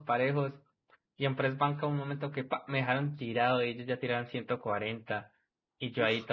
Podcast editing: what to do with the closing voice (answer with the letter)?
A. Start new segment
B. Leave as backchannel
B